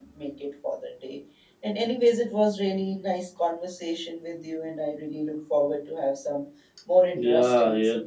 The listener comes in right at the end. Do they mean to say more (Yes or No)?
Yes